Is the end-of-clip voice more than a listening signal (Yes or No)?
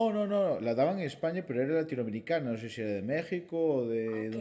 No